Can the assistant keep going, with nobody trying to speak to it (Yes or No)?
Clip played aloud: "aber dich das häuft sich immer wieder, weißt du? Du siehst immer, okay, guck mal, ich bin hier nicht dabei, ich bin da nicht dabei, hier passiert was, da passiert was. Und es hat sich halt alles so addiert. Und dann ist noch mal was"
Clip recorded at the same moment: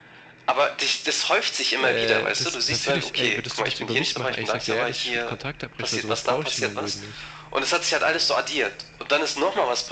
No